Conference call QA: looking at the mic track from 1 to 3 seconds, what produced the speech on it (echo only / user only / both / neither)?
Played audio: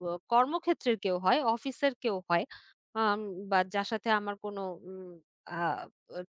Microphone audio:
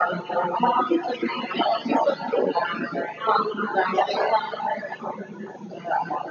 echo only